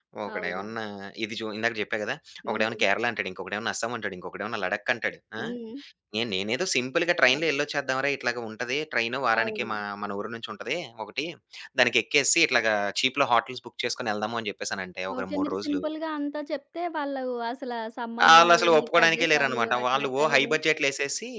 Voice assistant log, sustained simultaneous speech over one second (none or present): present